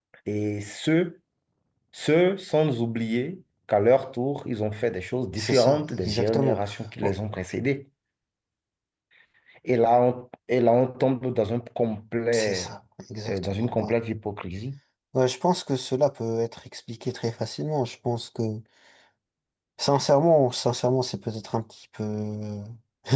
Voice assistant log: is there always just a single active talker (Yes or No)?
No